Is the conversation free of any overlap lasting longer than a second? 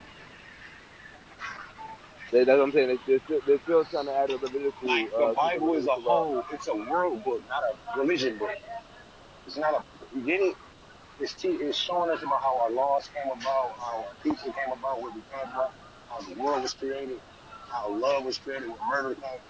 No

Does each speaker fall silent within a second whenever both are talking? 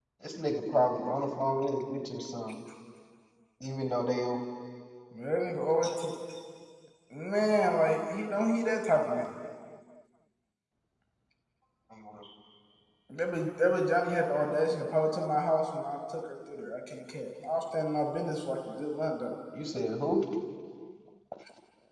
Yes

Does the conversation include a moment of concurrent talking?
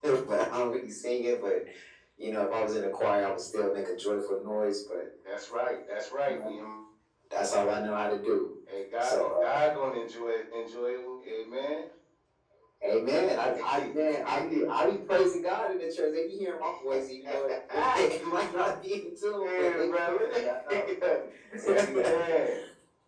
Yes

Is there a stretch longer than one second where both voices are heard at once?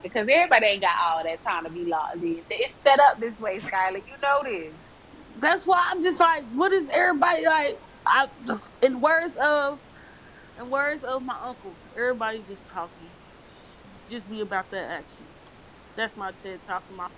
No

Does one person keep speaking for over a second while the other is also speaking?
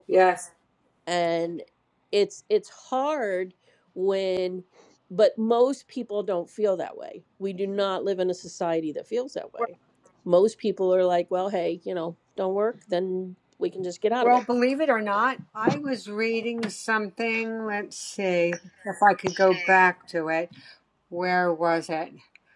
No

